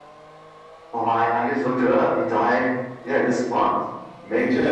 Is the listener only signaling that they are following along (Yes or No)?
No